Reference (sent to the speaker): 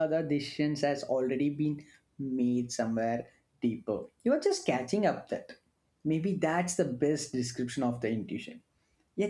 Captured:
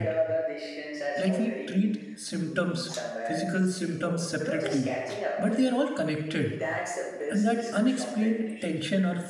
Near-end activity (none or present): present